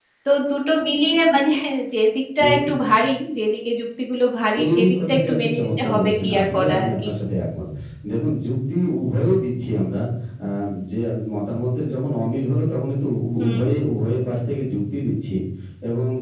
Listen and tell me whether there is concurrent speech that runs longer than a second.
Yes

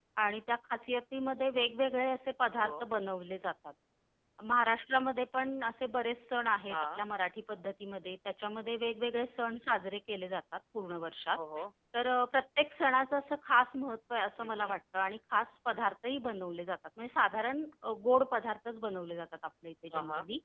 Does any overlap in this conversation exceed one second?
No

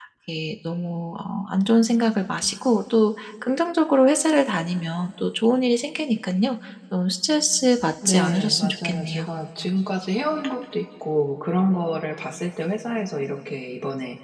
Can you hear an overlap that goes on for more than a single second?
Yes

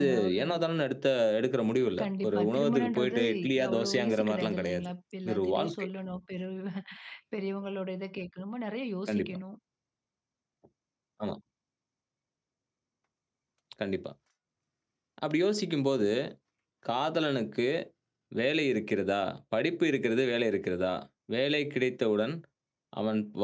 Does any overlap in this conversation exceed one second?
Yes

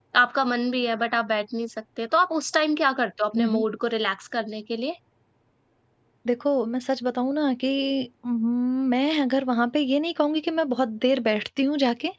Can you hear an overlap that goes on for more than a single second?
No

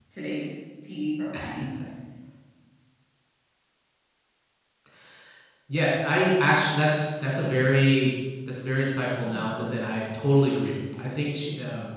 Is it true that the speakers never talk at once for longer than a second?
Yes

